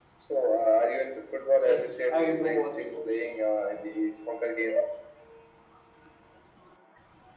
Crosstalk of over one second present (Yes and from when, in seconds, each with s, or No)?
Yes, from 1.6 s